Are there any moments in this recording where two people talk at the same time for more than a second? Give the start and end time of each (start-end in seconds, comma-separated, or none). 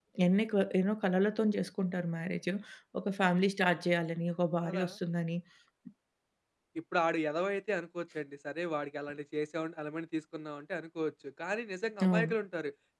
none